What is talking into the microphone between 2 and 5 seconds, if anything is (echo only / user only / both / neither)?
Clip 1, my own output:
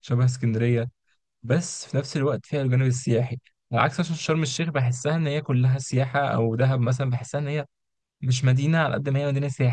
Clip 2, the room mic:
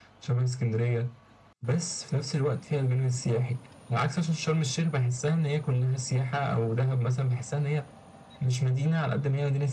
echo only